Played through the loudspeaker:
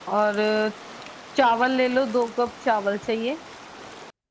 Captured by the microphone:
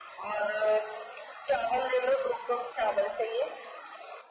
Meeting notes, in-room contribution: none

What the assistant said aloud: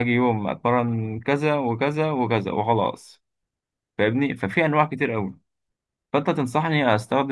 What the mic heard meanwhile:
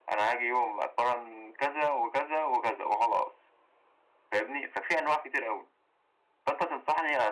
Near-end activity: none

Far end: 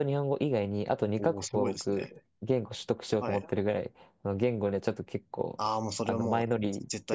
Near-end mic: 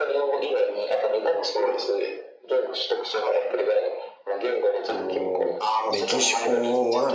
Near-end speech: present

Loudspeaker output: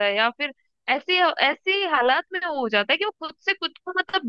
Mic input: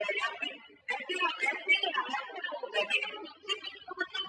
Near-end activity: none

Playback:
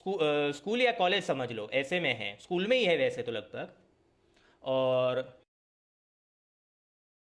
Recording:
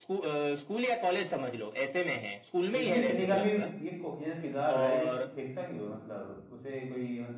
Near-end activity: present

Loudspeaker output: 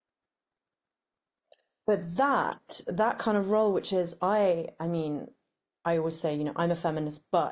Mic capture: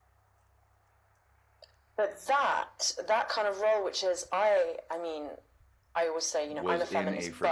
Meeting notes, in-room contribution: present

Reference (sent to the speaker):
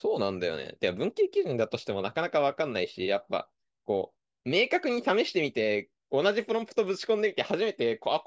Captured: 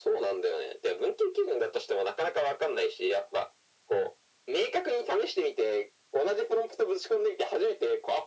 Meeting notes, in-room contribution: none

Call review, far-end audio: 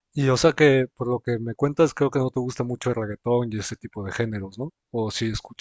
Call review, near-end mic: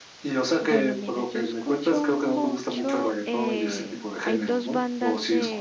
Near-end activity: present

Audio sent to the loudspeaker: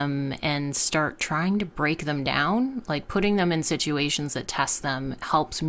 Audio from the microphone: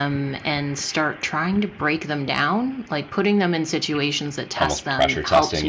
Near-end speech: present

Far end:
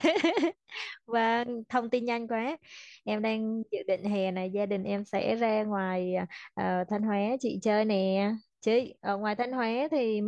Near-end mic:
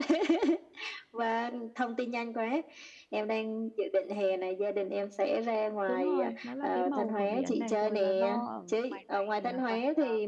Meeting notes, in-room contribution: present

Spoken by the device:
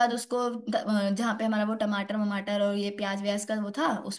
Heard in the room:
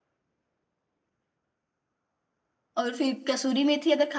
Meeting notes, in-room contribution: present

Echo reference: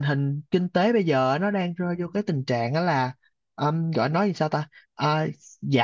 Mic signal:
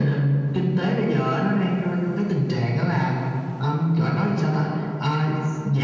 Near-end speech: none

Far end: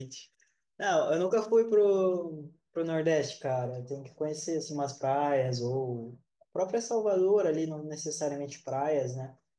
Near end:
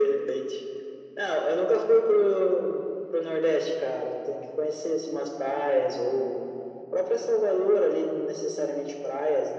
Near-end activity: none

